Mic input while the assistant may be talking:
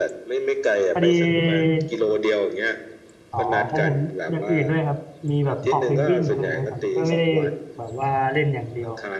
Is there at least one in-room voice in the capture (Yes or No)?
Yes